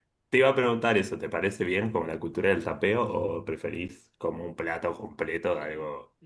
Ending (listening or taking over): taking over